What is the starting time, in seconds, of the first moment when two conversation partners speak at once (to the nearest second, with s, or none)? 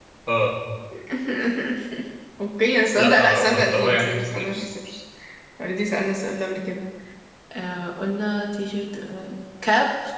3 s